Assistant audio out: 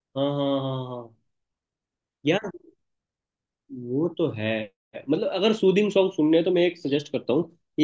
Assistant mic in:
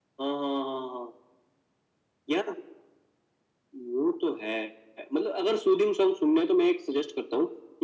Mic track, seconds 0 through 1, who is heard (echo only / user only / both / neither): echo only